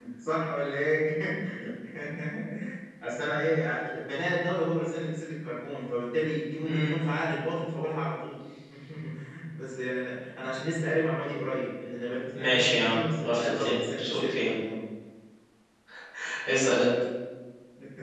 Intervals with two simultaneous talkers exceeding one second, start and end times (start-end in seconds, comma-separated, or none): 12.3-14.5